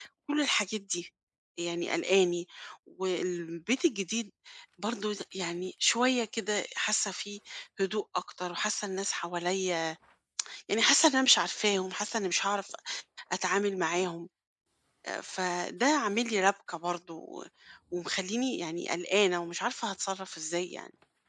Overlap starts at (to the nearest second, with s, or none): none